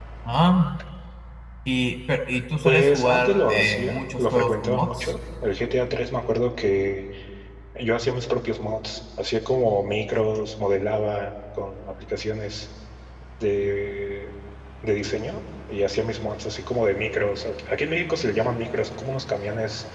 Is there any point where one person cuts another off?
Yes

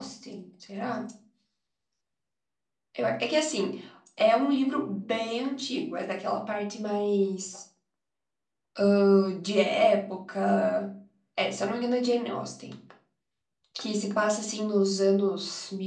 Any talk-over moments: No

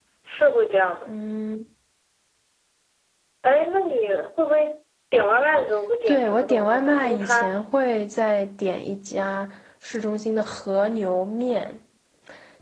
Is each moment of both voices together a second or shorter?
No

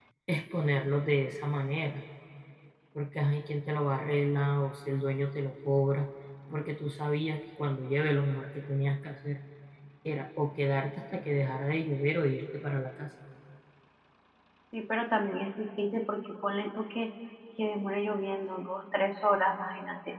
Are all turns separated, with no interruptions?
Yes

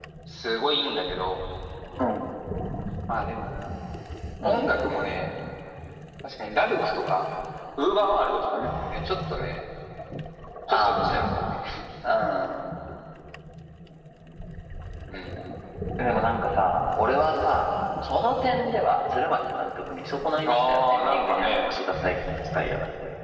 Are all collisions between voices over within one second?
No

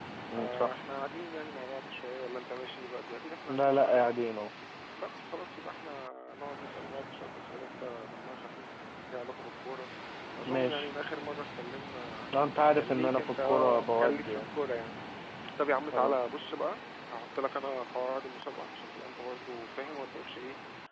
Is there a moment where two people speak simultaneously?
Yes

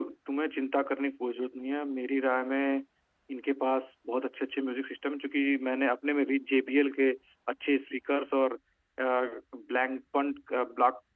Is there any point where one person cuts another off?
No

